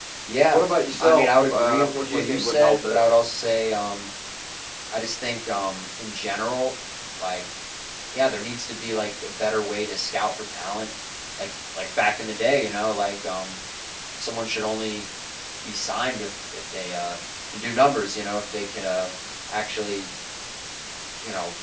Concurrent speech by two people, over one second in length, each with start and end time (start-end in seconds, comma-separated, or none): 1.0-3.0